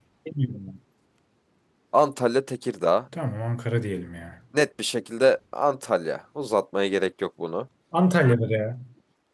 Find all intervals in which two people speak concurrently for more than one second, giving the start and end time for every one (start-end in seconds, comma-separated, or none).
none